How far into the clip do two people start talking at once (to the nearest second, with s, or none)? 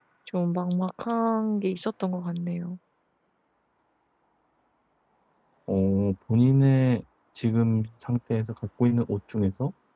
none